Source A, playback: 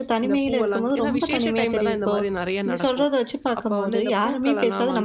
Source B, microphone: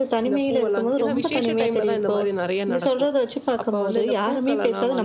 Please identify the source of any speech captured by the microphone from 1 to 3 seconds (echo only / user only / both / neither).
echo only